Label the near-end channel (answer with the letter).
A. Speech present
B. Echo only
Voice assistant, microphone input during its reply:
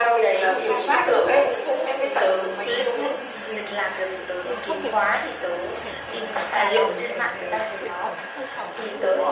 A